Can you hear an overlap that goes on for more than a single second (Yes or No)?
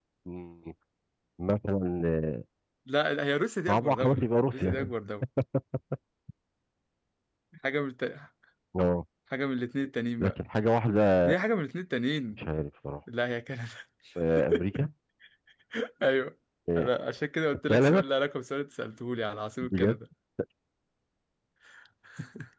Yes